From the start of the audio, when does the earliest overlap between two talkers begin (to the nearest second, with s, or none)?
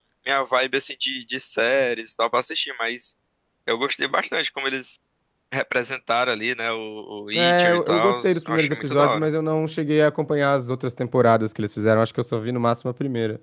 7 s